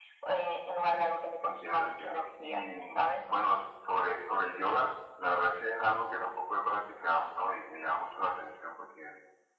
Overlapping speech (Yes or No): Yes